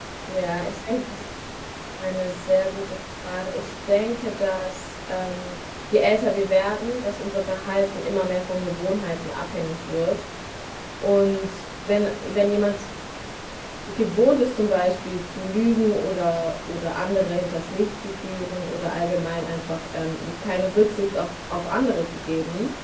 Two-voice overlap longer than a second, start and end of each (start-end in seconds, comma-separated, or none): none